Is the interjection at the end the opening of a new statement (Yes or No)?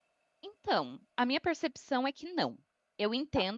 No